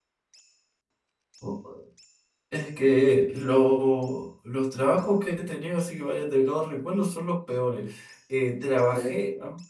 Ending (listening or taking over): listening